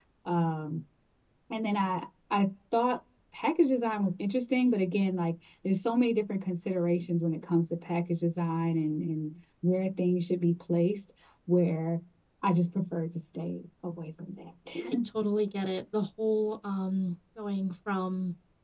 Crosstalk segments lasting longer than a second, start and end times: none

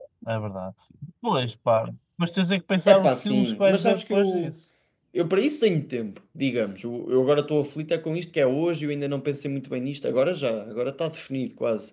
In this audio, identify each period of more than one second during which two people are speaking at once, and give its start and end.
2.9-4.5

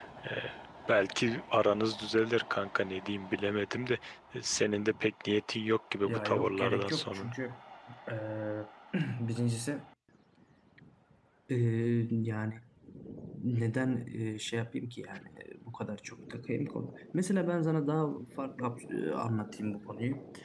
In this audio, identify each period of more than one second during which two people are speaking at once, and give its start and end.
6.0-7.3

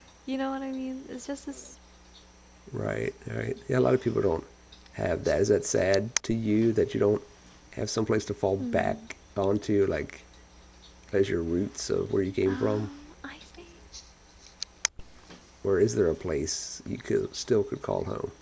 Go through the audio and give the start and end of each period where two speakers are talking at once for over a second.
none

